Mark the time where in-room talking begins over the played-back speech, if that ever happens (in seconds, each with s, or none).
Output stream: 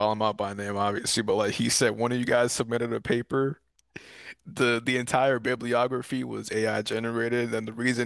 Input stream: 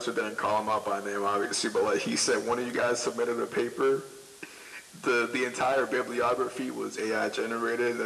none